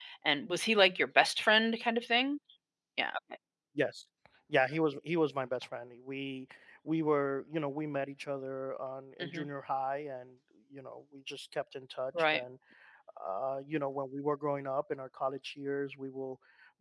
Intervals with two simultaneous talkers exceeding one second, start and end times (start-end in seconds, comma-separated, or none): none